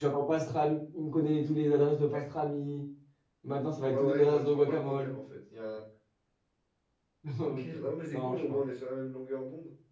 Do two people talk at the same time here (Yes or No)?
Yes